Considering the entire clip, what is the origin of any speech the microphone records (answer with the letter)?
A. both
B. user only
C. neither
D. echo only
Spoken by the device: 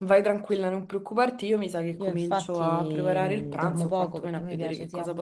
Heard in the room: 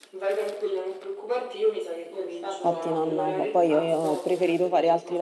A